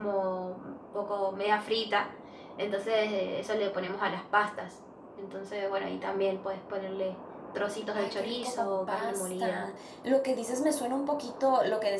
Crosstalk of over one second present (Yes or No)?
Yes